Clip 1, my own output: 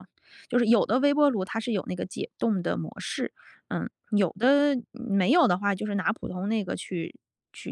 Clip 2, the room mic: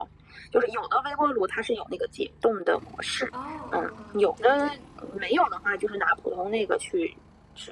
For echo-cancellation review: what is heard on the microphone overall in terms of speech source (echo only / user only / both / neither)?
both